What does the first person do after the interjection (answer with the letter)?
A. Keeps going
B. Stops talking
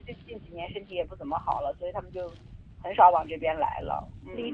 B